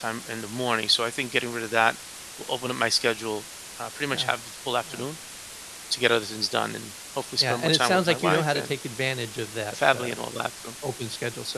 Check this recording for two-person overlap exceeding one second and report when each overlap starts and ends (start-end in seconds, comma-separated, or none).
7.4-8.7